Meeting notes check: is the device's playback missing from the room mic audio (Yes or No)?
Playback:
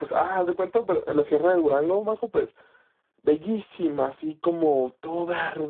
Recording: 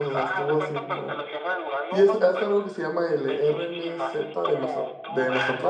No